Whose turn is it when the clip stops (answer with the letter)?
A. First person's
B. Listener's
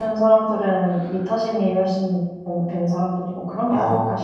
B